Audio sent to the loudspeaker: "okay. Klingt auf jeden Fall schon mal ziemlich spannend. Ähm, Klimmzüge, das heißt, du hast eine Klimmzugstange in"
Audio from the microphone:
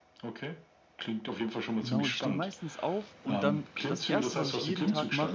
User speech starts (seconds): 1.8 s

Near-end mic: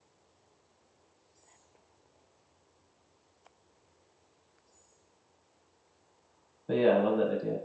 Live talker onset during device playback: 6.7 s

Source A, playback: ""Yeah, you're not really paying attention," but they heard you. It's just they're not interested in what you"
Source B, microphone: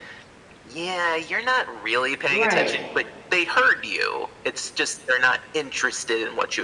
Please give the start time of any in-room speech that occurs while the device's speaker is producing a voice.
2.3 s

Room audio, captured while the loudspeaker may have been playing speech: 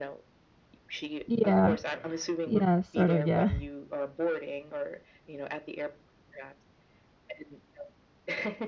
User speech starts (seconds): 1.2 s

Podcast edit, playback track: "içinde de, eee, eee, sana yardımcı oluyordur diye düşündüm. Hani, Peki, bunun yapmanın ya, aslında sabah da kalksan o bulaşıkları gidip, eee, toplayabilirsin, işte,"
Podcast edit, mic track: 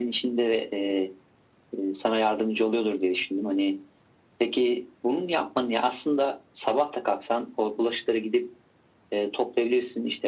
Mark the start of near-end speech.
none

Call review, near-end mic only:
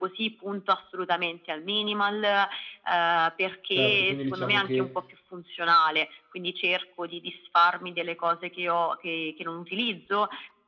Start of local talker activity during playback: 3.7 s

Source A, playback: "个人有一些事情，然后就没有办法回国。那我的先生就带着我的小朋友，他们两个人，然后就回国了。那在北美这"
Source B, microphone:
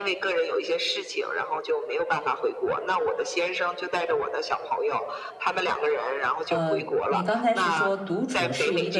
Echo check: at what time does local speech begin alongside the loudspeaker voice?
6.5 s

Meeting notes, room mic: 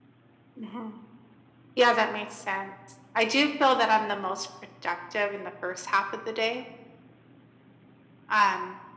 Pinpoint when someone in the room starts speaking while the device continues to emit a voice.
none

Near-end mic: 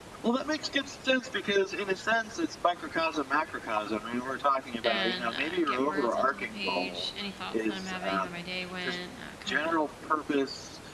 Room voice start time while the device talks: 4.8 s

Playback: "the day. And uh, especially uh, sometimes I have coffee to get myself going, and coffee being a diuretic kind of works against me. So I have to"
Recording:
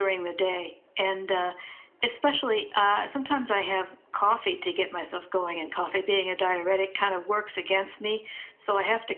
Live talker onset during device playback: none

